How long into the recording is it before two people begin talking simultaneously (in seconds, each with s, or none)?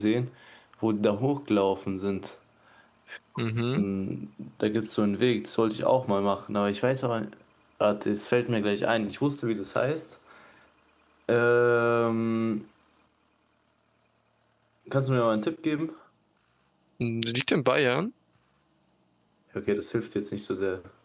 none